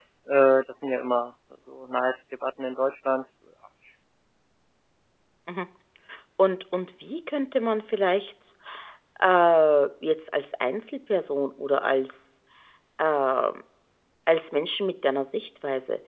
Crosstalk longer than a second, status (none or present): none